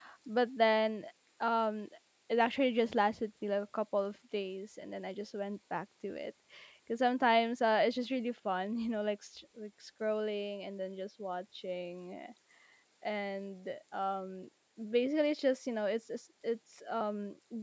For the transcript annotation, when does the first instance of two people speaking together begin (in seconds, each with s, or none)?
none